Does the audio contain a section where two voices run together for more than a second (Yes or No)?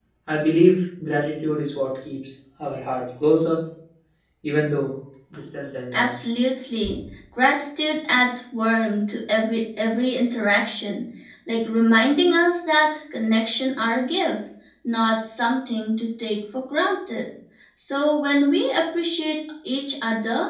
No